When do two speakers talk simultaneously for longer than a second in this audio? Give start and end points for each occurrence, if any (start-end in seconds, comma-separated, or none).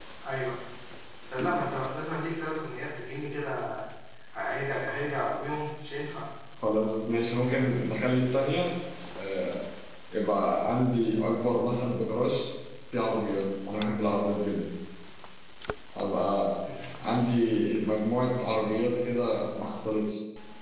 none